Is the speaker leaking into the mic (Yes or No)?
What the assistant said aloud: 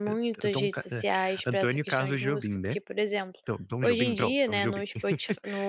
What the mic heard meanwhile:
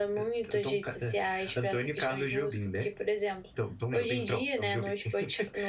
Yes